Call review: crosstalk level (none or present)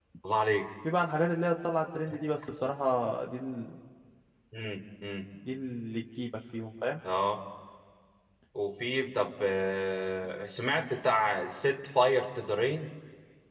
none